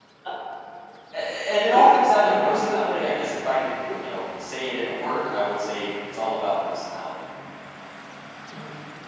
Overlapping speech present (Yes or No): Yes